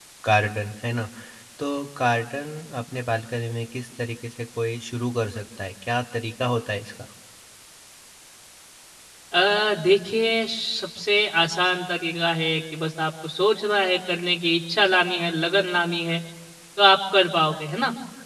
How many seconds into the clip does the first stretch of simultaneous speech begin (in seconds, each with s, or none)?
none